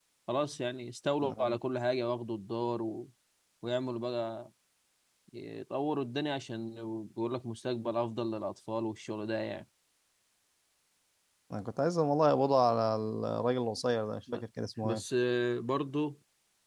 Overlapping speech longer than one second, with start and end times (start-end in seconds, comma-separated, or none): none